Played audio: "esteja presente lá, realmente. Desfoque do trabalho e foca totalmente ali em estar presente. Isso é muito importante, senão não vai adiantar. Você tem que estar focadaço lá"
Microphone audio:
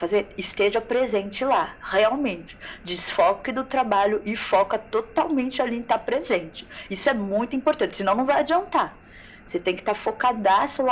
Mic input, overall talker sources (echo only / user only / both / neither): echo only